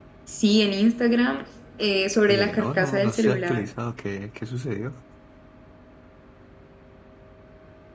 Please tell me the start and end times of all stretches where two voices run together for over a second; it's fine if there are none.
2.3-3.7

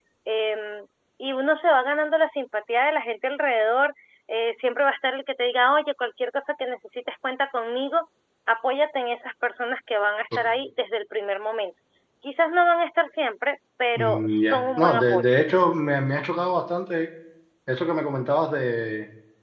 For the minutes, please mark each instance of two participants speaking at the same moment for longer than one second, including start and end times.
14.0-15.3

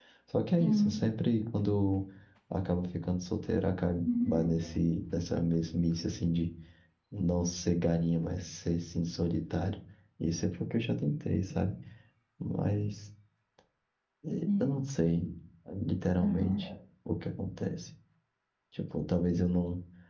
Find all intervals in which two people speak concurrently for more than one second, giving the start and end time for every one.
none

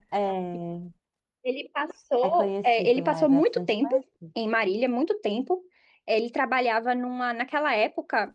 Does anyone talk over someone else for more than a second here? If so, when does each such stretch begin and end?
2.2-3.9

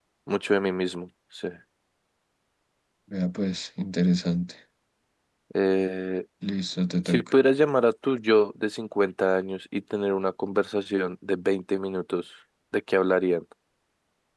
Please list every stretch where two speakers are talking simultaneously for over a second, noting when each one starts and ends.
none

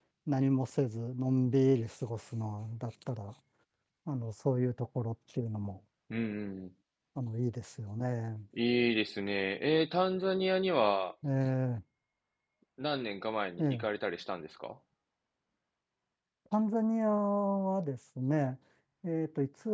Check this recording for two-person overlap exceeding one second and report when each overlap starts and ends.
none

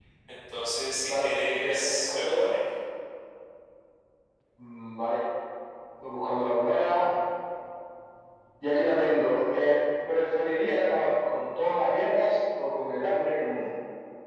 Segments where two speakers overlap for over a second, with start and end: 1.1-2.5

